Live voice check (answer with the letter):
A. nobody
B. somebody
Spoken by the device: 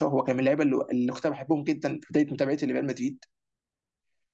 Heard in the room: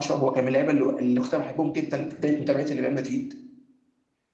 A